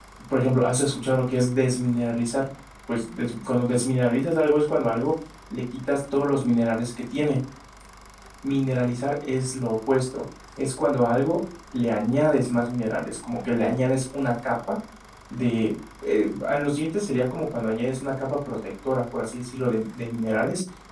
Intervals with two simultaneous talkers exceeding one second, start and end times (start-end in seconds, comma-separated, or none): none